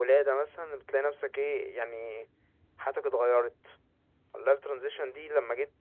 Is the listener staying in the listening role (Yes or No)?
Yes